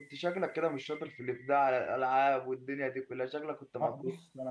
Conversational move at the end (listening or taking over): taking over